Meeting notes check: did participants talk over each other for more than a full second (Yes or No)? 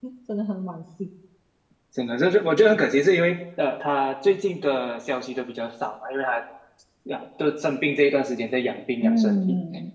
No